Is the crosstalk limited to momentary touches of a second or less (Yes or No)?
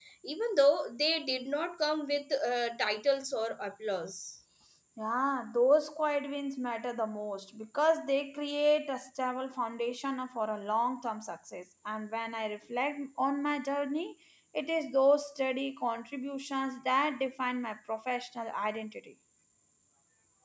Yes